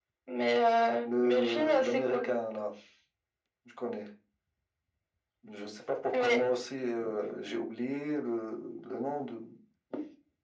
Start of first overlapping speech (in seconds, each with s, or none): 1.0 s